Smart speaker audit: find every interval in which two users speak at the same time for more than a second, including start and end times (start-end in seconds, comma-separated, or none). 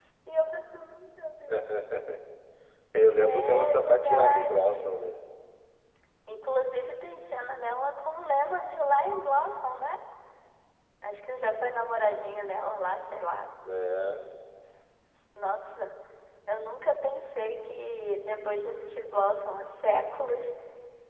3.2-4.9